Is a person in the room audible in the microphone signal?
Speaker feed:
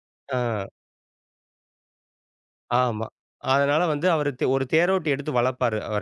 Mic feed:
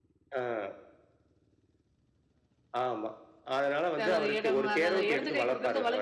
Yes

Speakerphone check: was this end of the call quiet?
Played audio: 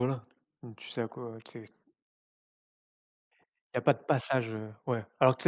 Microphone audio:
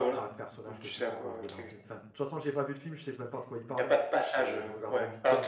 No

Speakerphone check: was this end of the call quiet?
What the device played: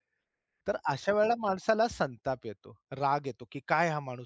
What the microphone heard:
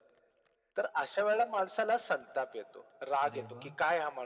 No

